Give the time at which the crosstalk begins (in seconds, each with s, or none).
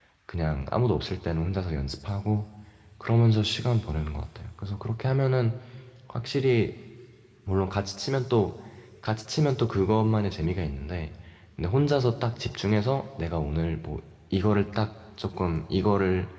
none